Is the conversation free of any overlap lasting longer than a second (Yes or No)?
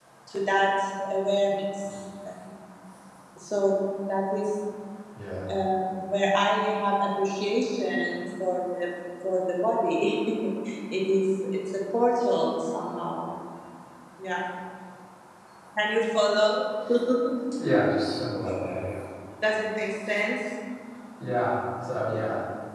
Yes